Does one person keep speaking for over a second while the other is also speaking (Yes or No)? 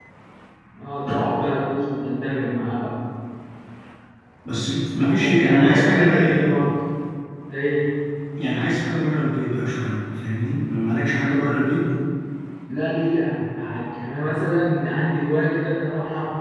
Yes